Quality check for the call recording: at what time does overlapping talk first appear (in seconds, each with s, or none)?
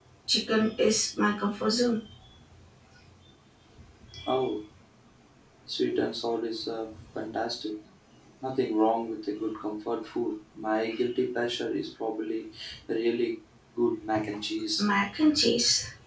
none